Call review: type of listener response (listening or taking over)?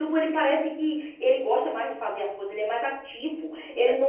listening